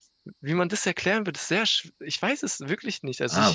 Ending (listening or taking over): taking over